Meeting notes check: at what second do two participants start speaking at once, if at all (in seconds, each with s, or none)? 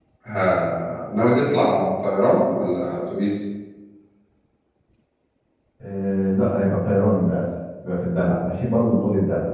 none